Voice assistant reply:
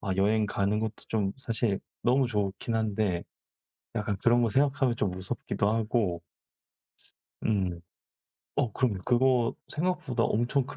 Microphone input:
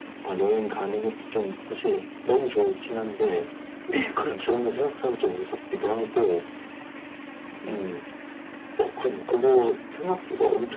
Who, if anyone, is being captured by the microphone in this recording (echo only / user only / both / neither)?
both